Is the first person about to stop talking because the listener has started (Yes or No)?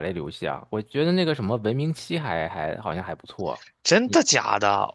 Yes